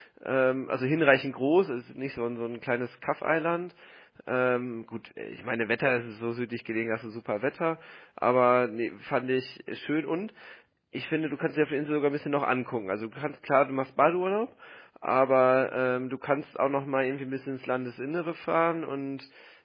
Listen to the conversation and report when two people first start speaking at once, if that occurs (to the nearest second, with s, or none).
none